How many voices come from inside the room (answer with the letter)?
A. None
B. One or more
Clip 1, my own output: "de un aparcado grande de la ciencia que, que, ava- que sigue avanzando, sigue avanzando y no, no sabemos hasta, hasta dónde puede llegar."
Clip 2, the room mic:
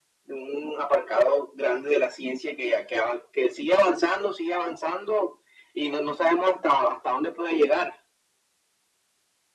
A